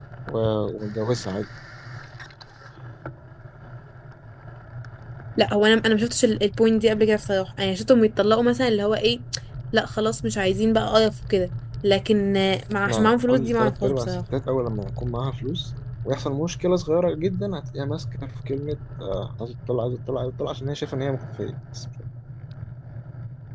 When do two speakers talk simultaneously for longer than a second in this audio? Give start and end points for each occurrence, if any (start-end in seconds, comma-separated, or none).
12.8-14.2